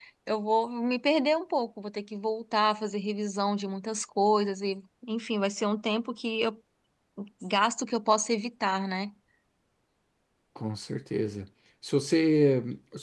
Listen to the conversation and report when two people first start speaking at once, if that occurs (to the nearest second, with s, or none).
none